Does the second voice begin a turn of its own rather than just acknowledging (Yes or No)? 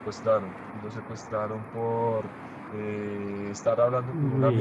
No